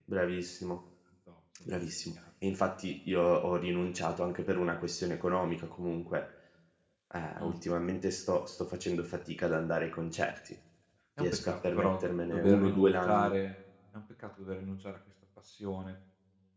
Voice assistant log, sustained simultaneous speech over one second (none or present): present